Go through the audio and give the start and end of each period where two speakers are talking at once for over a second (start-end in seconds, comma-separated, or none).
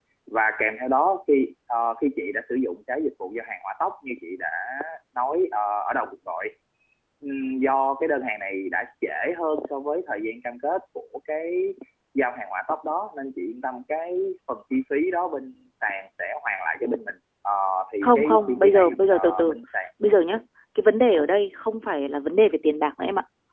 18.0-19.5